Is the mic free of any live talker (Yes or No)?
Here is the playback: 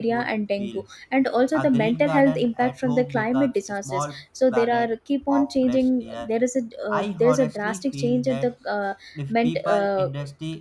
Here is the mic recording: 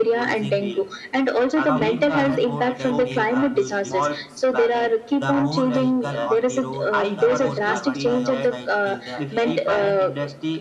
No